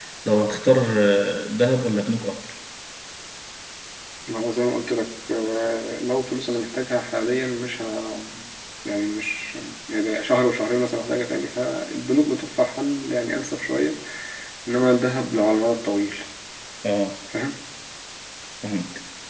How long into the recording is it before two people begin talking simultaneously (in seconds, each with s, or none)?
none